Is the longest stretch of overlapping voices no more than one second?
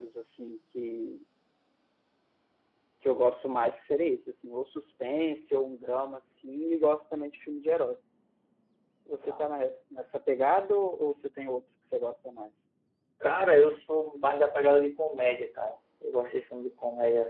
Yes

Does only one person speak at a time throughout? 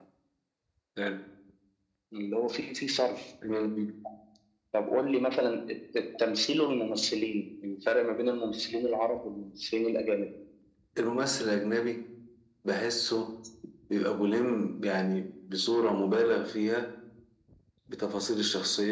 Yes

